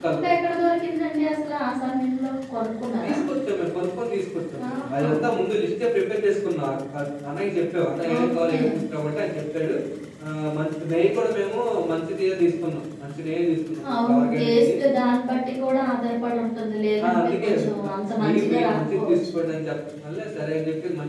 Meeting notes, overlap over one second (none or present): present